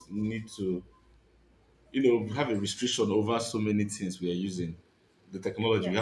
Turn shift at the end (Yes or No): No